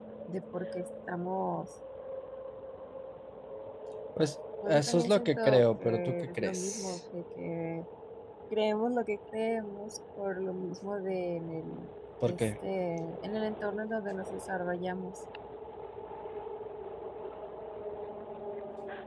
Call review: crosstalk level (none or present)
present